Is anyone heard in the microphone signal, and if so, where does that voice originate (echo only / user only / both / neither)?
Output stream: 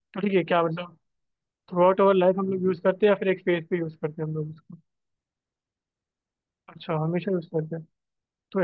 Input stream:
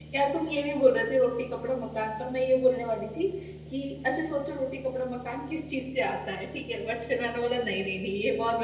user only